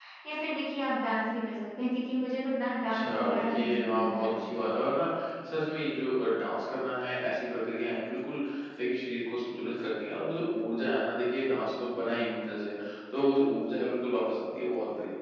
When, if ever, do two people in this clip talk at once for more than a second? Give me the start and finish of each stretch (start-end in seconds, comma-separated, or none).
2.9-4.3